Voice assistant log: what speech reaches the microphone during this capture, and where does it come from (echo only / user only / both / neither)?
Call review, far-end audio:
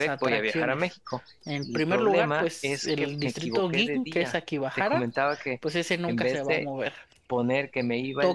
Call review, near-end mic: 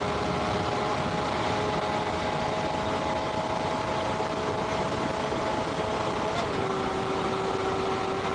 neither